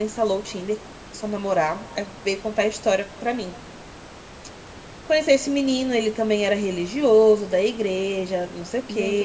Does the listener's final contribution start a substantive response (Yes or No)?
Yes